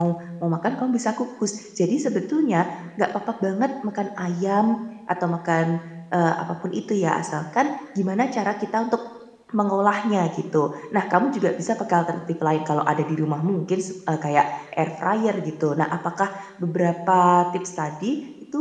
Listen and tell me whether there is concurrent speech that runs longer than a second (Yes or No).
No